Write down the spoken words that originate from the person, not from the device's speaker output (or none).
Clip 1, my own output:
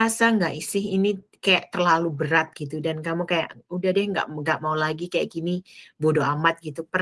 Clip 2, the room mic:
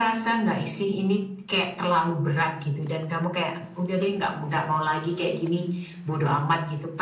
none